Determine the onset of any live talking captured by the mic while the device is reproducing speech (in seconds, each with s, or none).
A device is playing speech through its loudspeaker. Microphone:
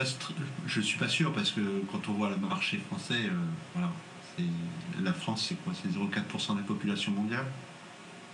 none